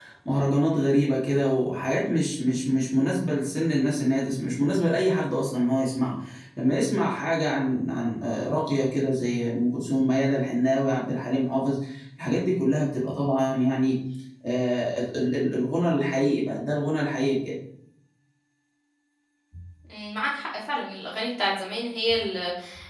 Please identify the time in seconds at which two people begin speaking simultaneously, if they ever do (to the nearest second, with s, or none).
none